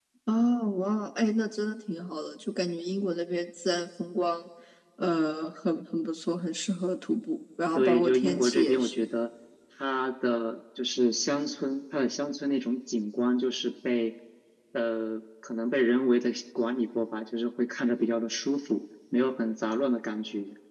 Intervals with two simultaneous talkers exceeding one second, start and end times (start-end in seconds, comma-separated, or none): 7.8-9.0